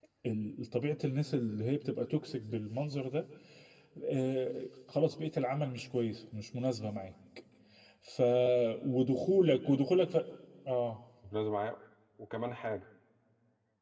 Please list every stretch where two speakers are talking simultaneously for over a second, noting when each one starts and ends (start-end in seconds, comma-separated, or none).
none